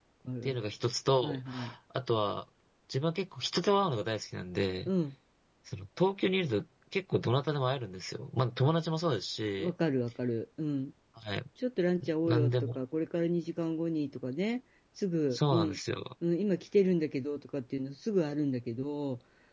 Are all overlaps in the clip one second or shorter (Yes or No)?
Yes